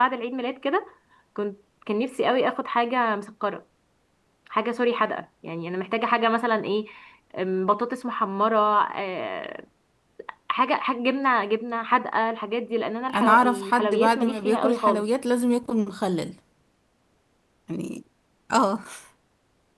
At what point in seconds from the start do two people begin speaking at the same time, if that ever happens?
13.1 s

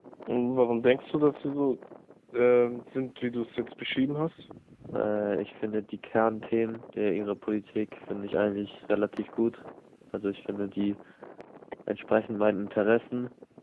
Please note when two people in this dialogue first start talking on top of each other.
none

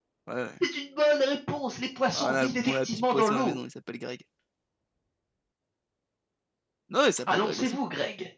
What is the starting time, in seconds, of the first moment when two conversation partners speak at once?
2.2 s

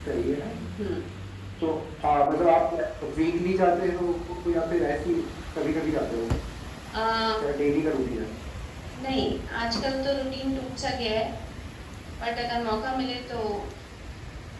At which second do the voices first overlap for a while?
none

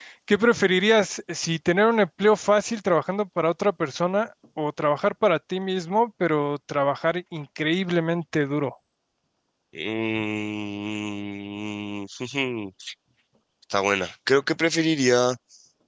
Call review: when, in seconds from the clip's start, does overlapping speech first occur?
none

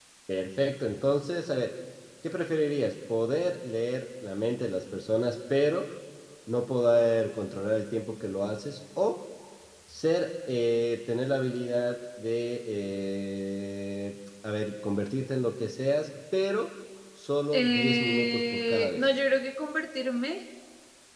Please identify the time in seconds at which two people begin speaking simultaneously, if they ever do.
17.5 s

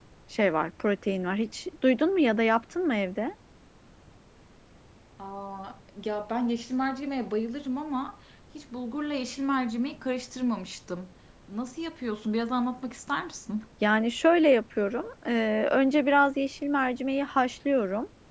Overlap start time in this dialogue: none

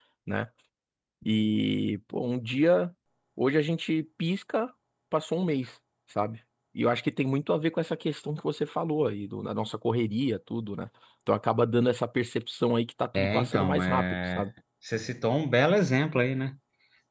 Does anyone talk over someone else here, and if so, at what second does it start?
13.1 s

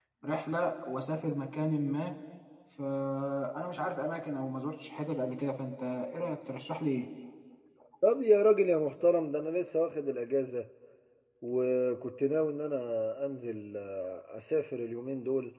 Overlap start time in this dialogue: none

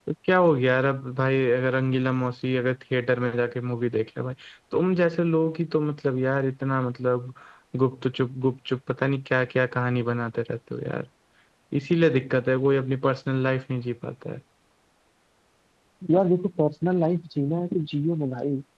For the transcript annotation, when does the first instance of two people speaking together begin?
none

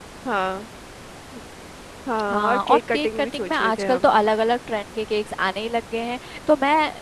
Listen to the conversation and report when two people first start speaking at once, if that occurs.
2.3 s

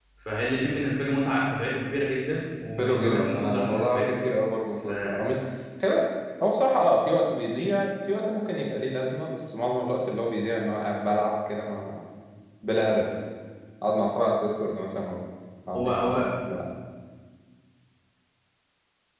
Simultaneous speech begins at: 2.8 s

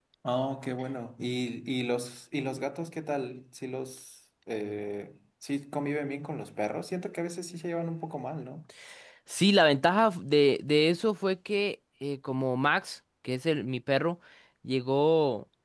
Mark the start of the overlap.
none

